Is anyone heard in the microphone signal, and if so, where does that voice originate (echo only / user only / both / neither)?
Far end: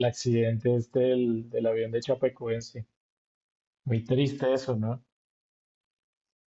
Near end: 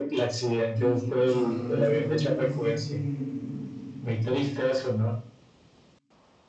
both